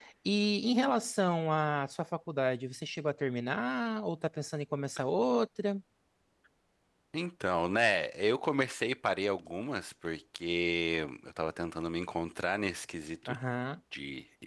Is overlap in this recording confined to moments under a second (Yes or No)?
Yes